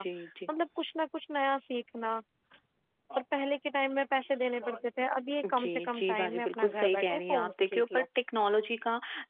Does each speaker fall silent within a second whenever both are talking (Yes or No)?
No